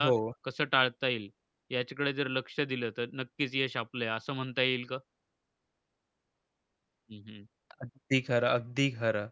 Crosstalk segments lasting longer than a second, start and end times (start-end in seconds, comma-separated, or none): none